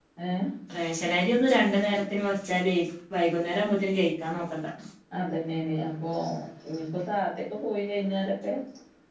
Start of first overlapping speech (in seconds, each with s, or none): none